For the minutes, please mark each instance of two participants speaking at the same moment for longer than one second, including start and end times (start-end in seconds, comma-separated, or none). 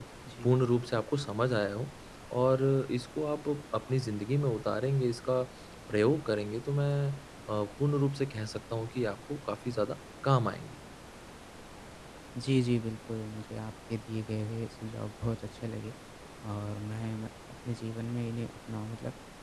none